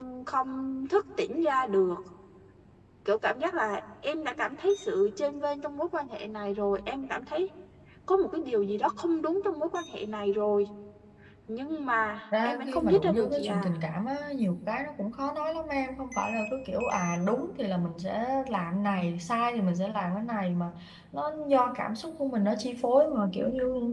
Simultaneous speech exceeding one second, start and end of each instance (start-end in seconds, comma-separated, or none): 12.4-13.7